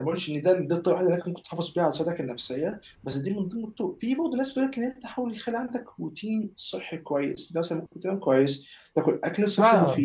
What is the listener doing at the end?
listening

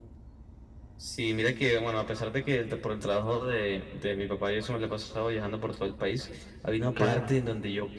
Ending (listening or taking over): listening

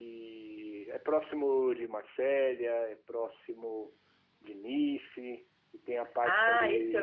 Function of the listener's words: taking over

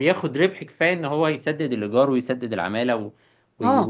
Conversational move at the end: taking over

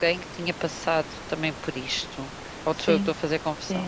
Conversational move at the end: taking over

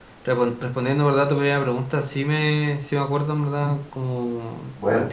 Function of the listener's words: listening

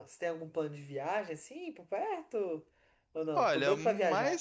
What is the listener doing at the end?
taking over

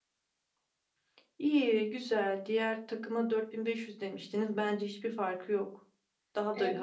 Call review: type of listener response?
taking over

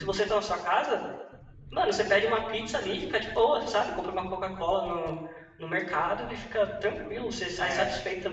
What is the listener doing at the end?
taking over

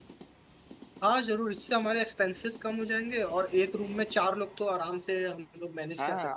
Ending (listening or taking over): taking over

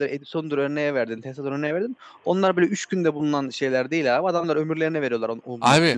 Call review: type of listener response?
taking over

